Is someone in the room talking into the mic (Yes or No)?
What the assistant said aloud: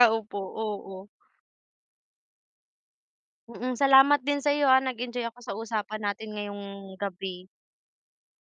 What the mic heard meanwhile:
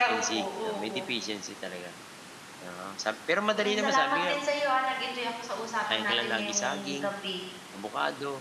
Yes